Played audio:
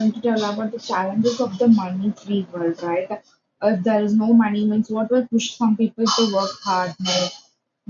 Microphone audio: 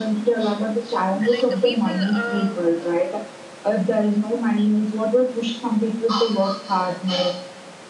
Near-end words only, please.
like uh, people uh,

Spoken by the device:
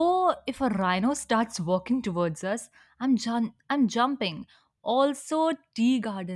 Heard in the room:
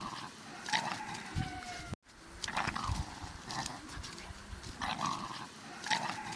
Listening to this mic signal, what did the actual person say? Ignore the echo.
none

